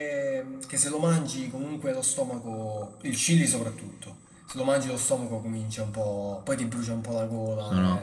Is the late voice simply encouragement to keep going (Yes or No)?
No